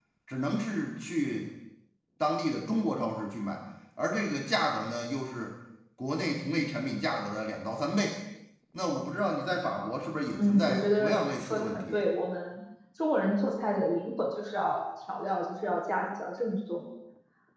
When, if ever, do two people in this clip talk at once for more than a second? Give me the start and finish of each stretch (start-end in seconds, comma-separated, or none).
10.3-12.0